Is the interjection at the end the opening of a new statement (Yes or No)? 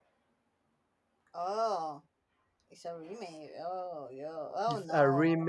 Yes